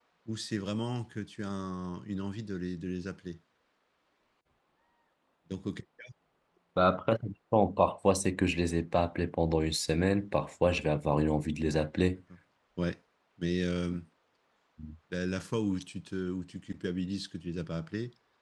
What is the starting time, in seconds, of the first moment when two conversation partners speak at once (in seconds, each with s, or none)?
none